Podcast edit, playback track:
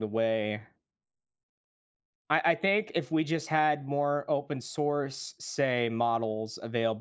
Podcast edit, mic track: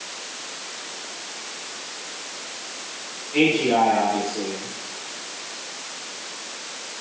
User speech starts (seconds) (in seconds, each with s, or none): 3.3 s